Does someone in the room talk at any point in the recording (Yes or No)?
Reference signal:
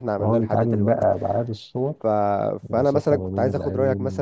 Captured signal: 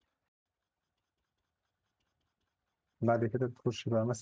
Yes